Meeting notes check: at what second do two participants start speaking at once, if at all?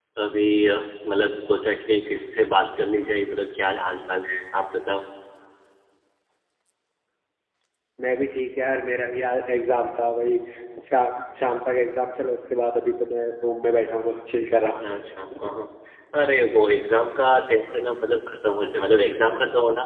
none

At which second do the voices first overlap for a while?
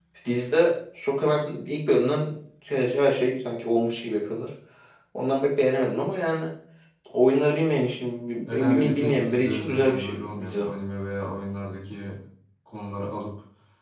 8.5 s

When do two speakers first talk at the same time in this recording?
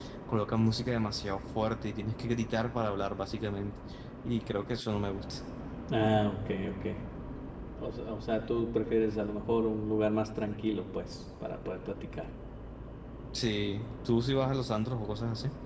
none

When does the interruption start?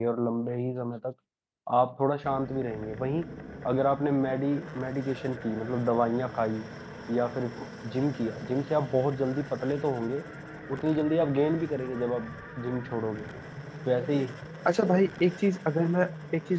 none

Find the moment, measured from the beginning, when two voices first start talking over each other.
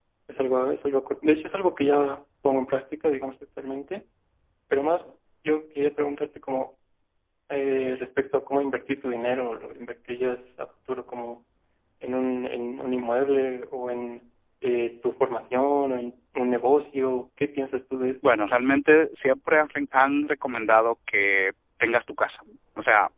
none

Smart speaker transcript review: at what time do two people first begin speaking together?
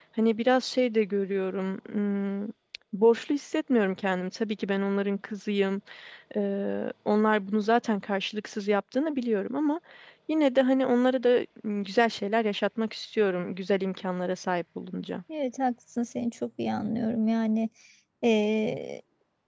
none

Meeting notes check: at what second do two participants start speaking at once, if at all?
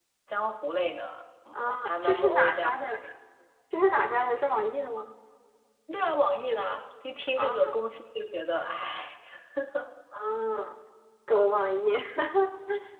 1.5 s

